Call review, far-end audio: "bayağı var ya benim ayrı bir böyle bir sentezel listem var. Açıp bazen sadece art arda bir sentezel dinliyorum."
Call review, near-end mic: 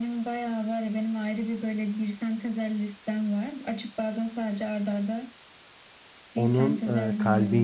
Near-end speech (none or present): present